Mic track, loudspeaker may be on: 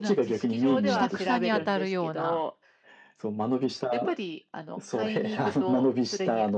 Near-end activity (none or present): present